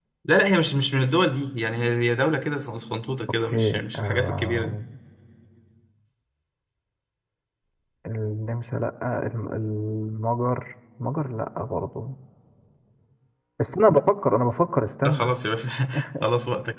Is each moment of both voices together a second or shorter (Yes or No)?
No